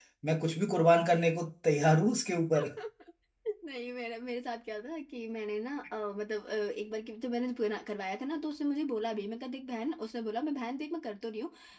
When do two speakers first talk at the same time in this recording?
none

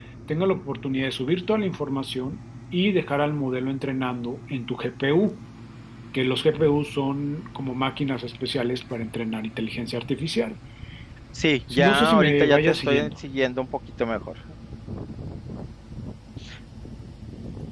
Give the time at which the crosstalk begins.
11.9 s

